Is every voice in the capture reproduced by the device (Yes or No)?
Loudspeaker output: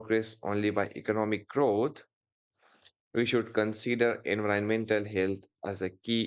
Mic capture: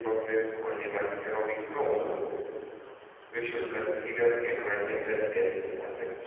Yes